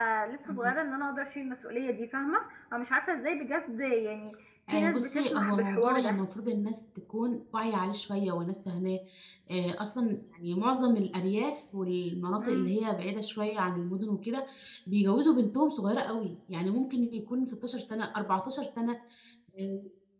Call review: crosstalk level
present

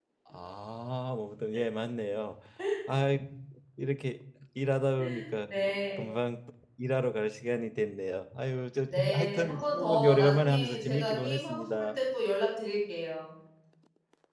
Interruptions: present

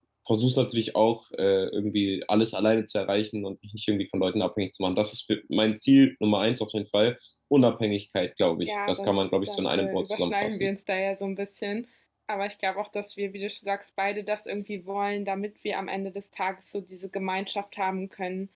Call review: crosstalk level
present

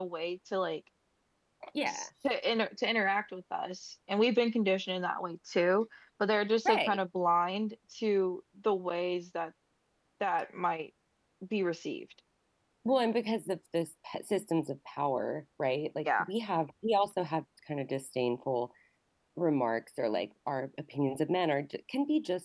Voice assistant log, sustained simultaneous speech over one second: none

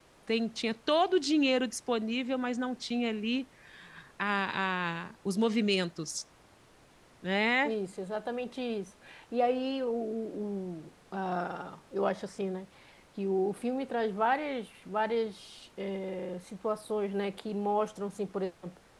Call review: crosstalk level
none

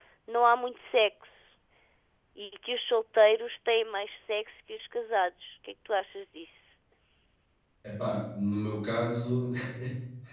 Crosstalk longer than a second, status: none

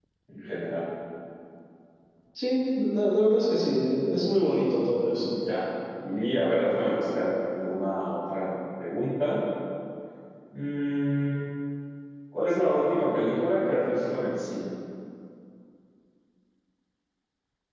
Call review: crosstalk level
none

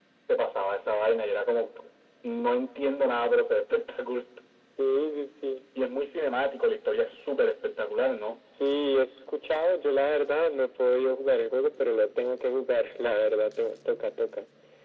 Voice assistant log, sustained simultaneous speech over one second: none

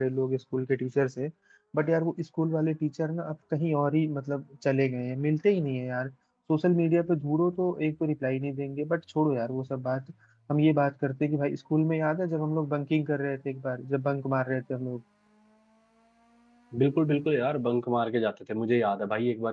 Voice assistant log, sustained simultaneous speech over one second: none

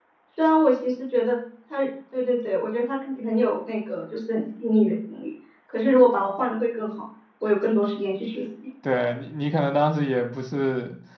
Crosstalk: none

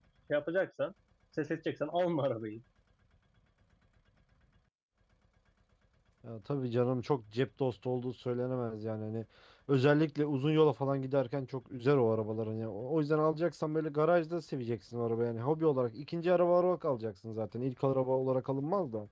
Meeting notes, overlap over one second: none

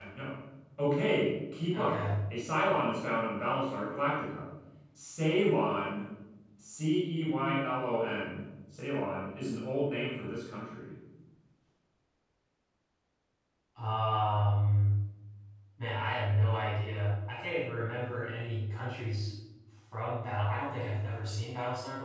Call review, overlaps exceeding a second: none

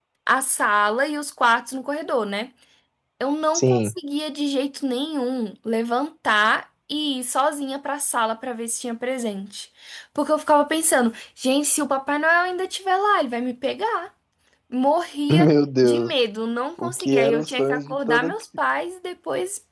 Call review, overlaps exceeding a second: present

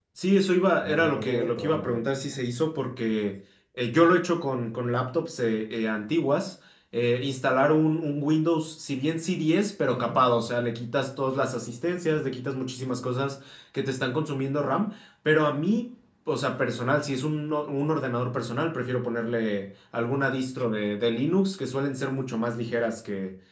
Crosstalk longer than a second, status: present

